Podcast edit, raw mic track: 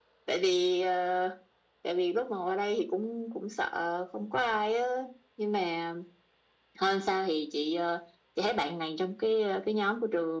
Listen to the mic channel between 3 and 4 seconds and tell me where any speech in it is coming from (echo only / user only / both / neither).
echo only